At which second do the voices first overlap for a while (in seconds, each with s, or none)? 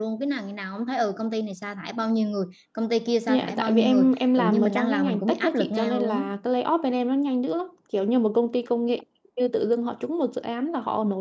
3.3 s